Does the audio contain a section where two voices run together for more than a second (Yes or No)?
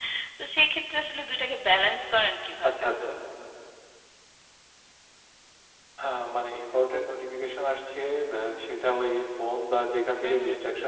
No